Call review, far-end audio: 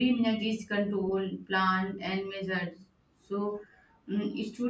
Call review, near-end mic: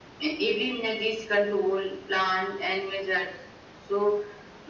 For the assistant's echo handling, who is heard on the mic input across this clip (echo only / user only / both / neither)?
echo only